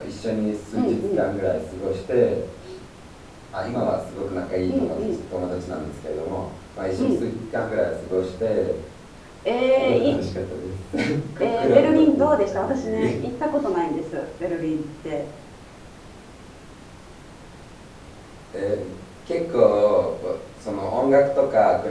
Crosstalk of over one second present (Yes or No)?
Yes